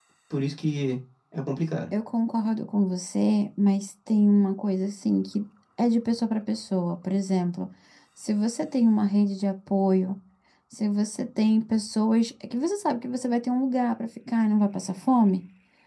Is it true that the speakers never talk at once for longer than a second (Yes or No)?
Yes